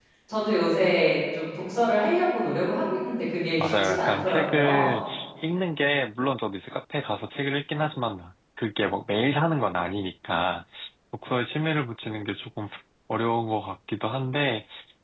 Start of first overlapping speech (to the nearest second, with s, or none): 4 s